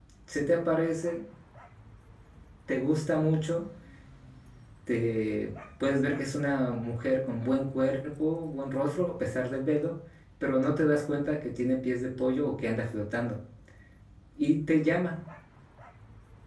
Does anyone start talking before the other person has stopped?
No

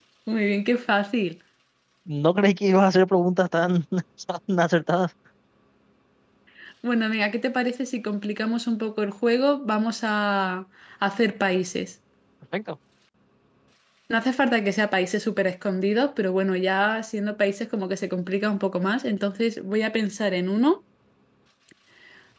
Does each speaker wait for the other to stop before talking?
Yes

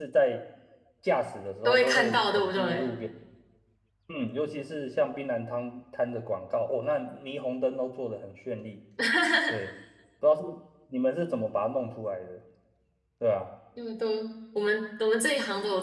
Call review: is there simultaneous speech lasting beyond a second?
Yes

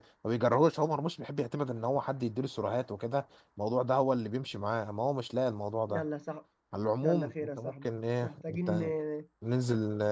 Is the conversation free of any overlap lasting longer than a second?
No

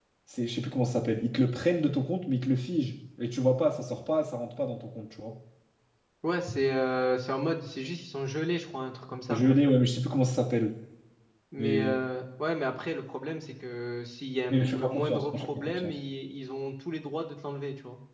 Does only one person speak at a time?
No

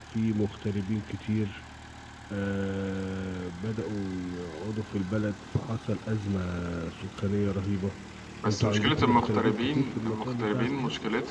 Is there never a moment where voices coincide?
No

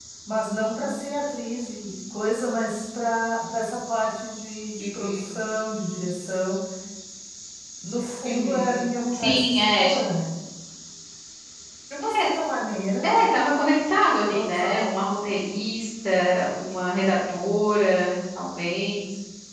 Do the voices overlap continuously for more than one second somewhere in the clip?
Yes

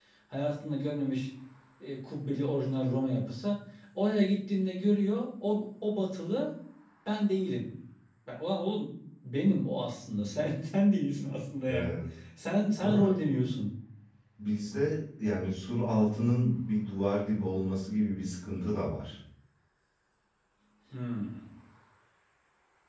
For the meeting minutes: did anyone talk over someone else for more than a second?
No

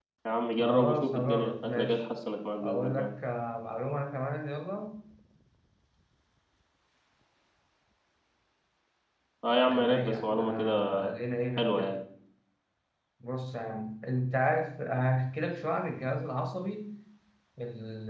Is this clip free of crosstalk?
No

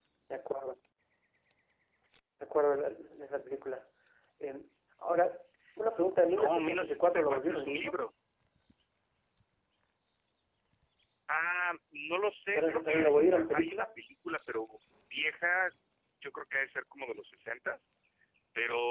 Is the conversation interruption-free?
No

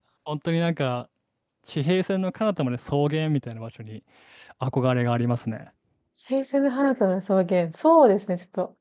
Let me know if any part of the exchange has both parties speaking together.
No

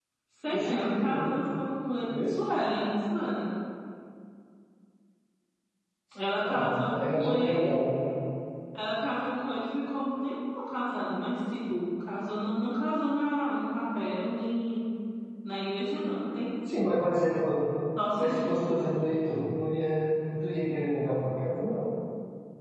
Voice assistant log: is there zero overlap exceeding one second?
No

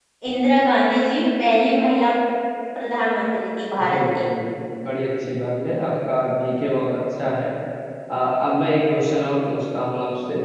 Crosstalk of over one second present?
No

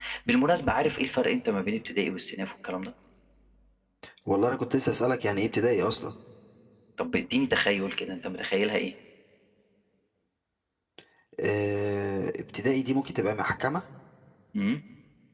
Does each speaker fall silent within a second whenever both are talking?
Yes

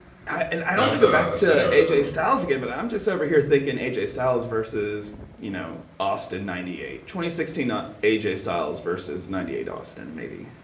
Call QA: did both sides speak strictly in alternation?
No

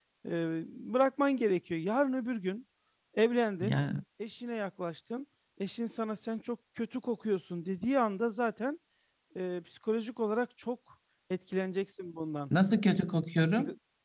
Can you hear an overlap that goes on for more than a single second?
No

